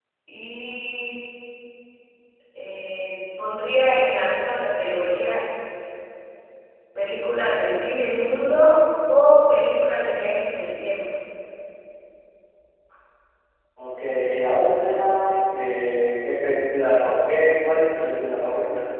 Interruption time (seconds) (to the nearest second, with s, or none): none